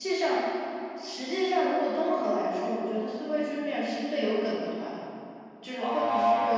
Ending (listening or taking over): taking over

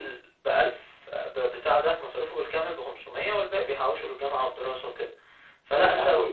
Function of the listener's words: taking over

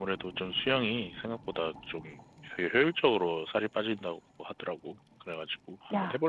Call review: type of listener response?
taking over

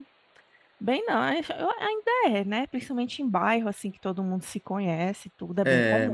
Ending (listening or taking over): taking over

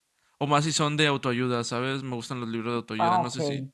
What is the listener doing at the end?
taking over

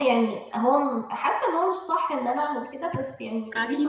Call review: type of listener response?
taking over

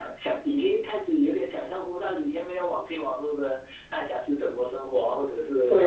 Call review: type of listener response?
taking over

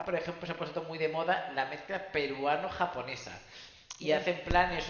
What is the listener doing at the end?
listening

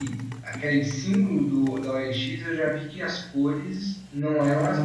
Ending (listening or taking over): listening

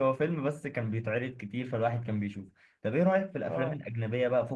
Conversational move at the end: listening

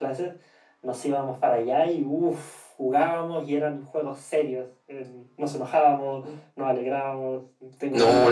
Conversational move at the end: taking over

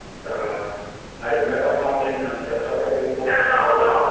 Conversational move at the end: taking over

